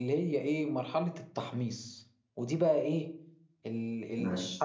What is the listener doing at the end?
listening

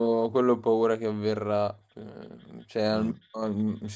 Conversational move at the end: listening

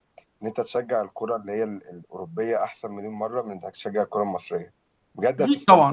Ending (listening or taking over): taking over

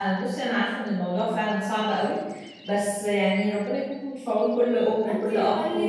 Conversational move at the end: taking over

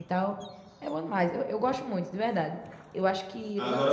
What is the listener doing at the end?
listening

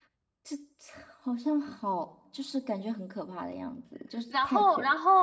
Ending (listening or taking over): taking over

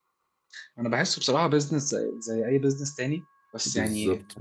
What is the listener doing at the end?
taking over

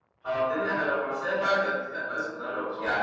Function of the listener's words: taking over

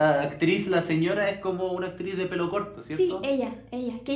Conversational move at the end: taking over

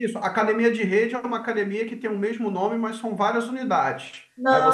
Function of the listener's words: listening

